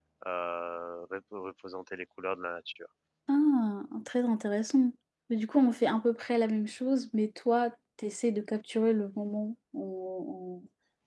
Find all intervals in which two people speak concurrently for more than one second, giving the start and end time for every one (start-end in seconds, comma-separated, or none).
none